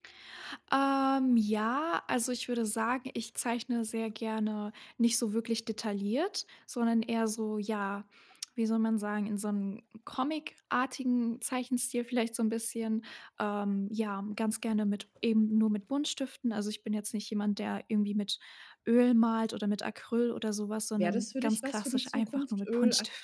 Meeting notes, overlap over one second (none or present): present